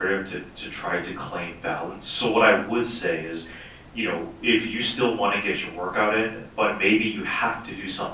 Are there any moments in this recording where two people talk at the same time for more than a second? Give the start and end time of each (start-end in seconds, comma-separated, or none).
none